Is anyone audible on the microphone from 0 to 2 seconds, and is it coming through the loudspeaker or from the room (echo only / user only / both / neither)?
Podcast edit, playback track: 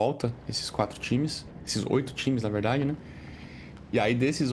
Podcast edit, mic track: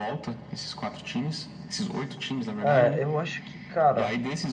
echo only